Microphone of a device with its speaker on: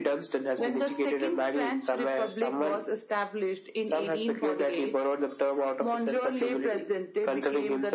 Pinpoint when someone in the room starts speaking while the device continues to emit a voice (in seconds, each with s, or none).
none